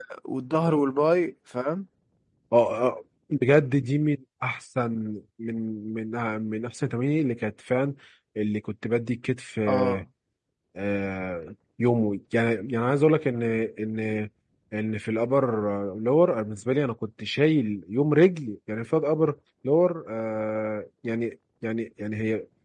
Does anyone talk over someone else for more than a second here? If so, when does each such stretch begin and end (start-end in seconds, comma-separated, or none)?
none